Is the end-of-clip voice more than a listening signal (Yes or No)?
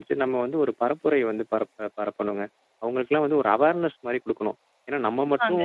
No